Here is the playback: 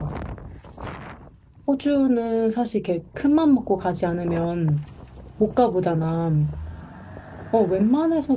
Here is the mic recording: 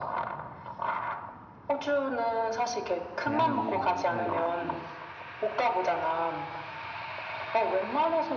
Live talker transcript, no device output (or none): 제한이 많다 해가지고